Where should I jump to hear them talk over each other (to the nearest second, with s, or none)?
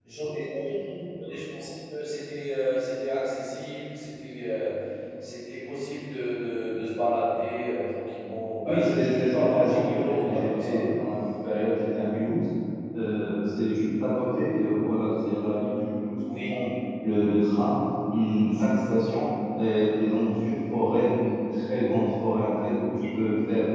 9 s